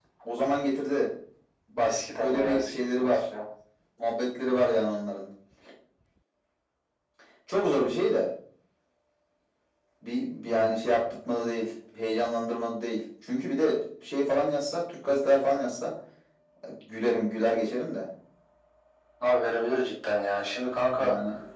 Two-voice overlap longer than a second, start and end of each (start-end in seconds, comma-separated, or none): 1.8-3.1